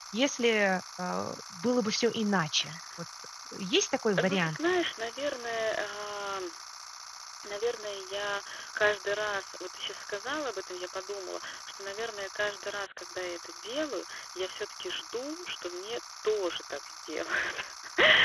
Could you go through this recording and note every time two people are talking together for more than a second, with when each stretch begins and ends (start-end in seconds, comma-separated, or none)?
none